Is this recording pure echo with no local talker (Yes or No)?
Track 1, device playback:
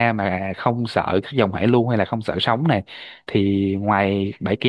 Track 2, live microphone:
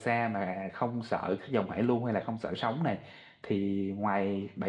Yes